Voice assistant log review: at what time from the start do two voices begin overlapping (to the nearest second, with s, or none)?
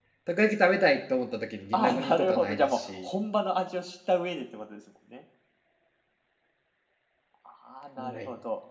2 s